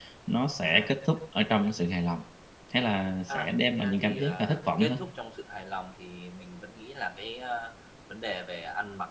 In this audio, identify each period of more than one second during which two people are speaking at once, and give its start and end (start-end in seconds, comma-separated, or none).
3.3-5.0